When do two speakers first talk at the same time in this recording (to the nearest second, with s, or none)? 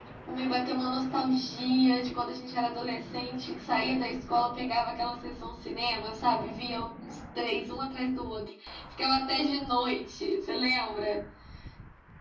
none